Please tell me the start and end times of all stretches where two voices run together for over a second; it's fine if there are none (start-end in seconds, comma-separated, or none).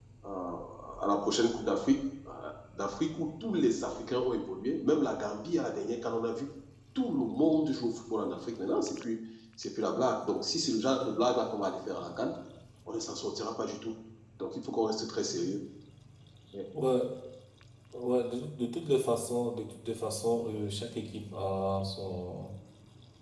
none